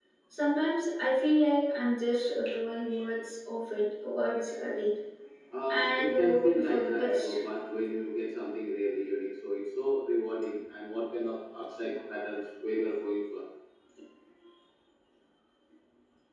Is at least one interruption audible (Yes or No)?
Yes